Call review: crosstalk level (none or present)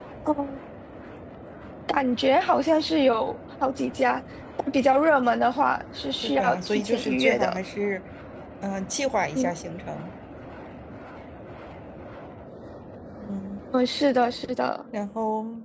present